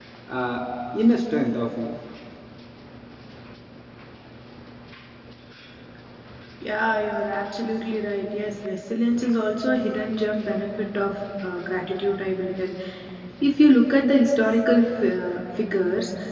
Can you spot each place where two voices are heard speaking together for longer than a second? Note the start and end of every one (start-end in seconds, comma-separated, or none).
none